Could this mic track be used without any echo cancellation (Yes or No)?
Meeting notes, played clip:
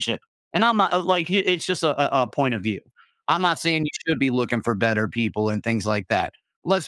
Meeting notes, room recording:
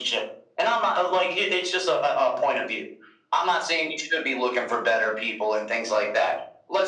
No